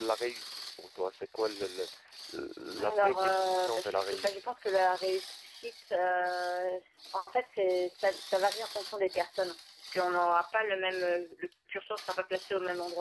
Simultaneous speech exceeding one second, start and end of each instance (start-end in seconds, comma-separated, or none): 2.8-4.5